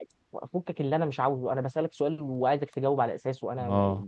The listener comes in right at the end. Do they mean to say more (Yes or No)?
No